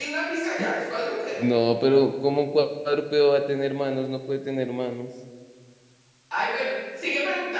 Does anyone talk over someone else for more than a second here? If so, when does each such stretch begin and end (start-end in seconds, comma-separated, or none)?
none